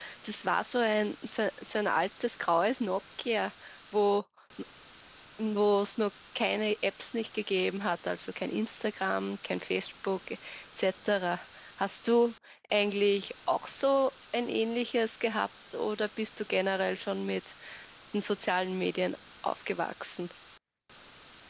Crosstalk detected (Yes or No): No